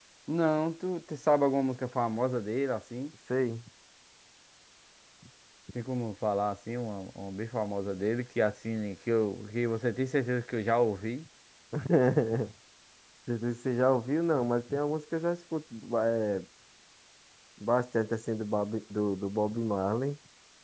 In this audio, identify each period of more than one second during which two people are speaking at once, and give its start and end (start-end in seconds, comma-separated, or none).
none